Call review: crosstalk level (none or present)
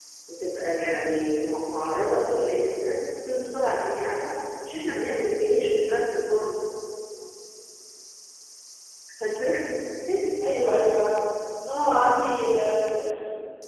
none